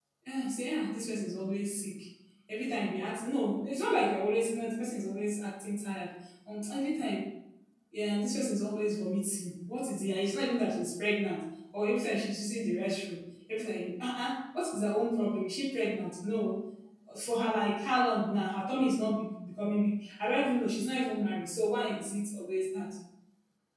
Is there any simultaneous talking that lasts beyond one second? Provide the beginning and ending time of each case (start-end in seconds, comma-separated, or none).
none